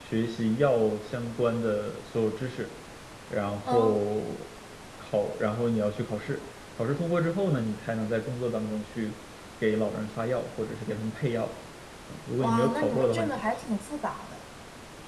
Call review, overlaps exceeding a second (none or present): present